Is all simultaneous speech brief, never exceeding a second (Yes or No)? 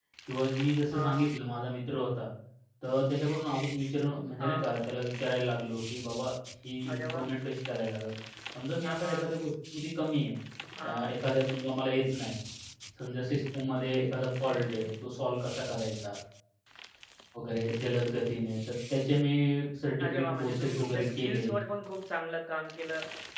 No